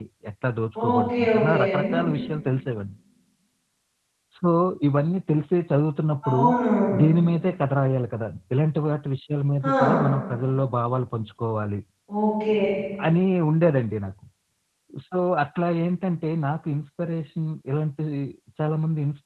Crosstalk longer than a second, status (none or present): present